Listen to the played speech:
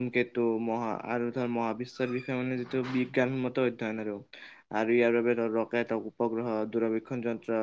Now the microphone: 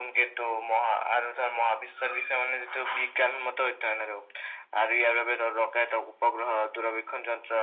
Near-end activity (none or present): none